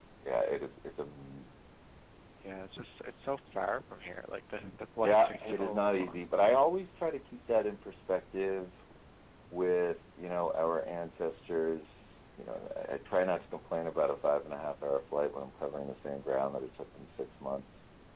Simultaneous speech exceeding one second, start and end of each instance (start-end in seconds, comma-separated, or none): 5.0-6.7